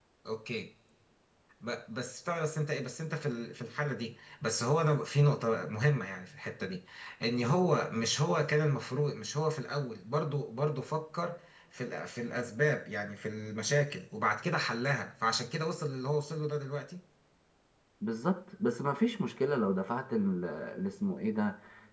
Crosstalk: none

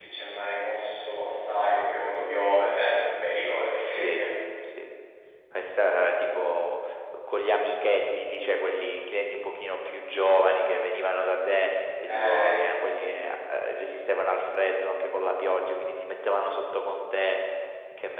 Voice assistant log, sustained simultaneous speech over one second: none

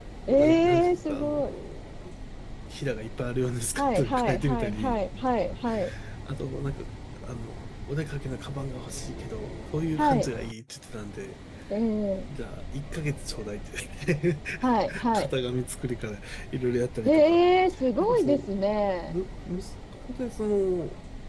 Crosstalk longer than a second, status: present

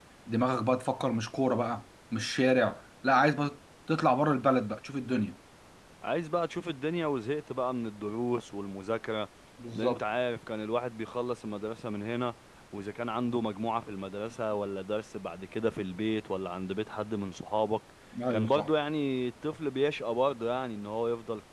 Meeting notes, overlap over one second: none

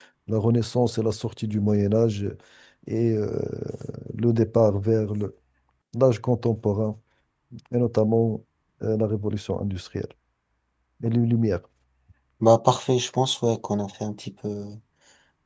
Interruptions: none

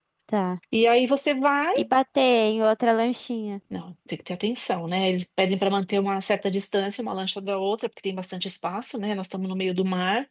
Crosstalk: none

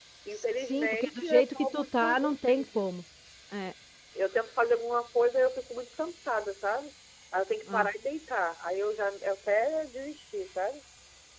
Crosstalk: present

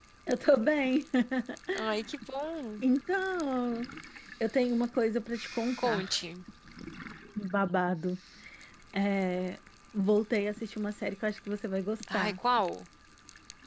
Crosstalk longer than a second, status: none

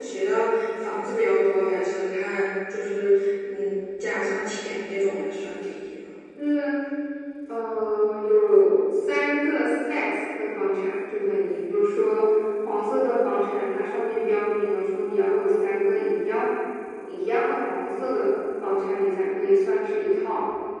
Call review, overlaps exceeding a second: none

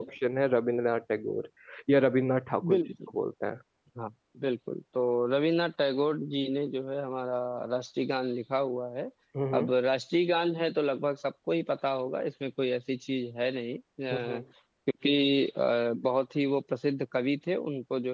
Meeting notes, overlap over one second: none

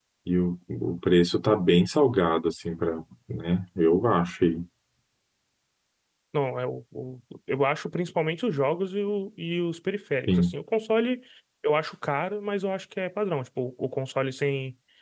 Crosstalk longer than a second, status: none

